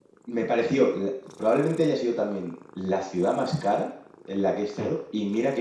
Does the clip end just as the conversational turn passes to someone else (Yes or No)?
No